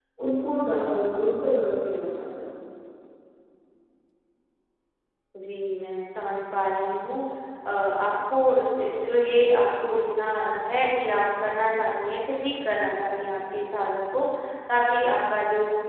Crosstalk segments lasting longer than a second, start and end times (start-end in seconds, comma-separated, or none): none